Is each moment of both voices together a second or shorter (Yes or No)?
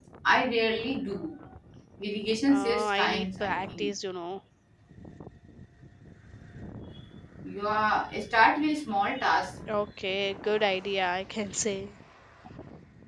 No